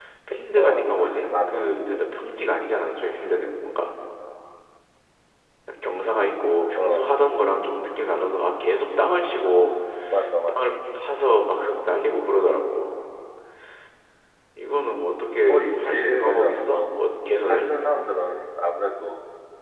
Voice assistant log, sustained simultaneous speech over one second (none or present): present